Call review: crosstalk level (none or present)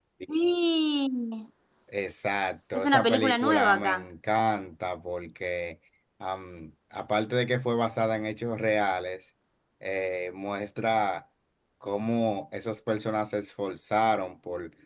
present